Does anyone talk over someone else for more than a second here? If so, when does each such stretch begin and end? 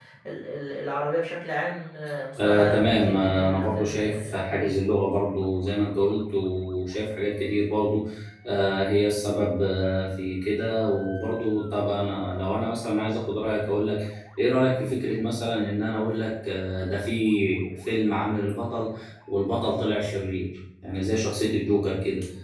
2.4-4.8

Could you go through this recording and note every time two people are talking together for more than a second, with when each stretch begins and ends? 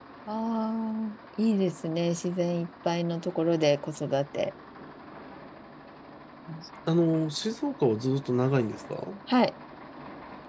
none

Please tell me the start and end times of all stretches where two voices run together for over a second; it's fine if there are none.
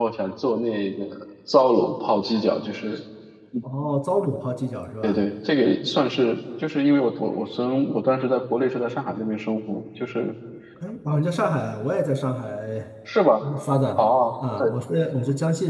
none

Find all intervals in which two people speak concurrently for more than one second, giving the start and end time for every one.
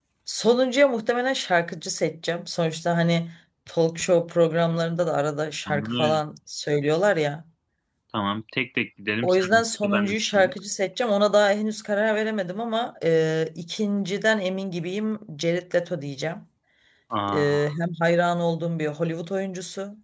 9.2-10.5

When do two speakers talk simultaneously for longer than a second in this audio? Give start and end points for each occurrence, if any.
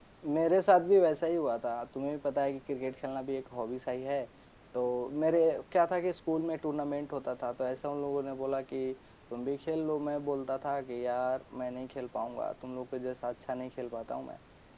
none

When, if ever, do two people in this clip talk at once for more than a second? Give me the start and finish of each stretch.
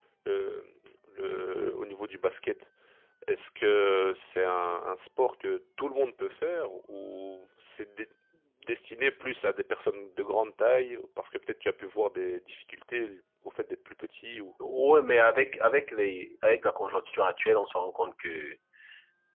none

